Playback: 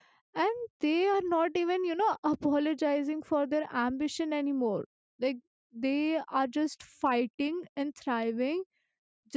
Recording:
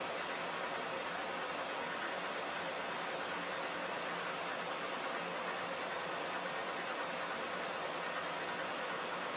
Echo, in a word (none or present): none